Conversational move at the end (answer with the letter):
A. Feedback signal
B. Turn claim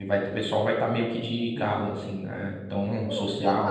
B